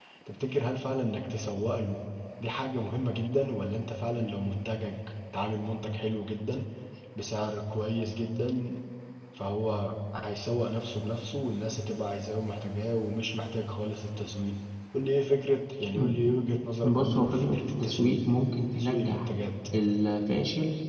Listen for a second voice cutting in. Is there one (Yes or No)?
Yes